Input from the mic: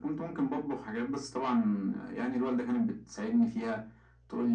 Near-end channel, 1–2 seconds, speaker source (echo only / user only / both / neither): echo only